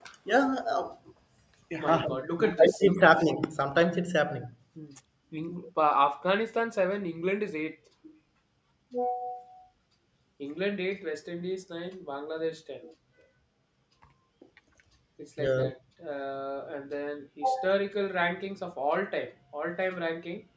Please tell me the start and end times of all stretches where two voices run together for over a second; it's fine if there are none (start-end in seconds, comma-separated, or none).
1.8-3.2